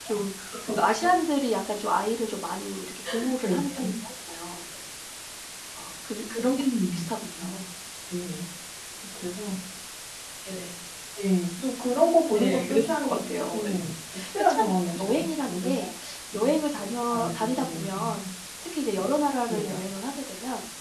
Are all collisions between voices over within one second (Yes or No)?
No